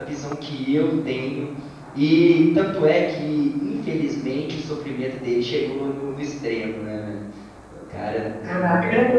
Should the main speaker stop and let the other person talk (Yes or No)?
Yes